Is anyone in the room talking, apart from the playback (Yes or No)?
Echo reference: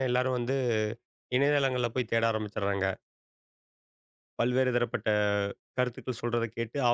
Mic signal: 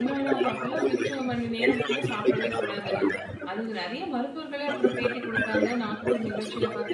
Yes